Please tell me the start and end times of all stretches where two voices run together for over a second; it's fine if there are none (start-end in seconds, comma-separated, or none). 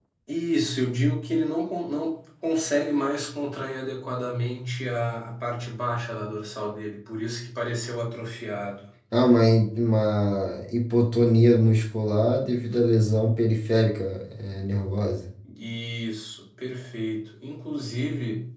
none